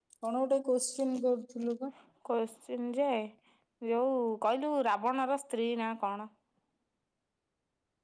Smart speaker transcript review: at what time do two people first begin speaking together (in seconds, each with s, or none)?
none